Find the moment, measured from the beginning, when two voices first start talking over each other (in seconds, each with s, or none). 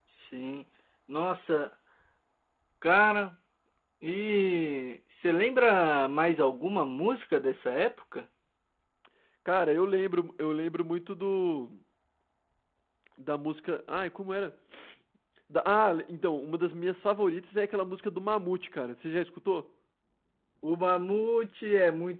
none